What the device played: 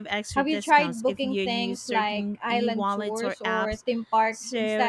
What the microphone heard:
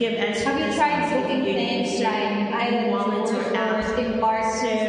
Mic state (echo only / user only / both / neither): echo only